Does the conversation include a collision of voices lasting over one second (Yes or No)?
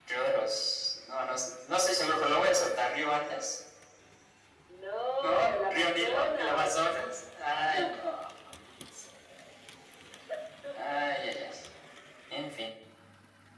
Yes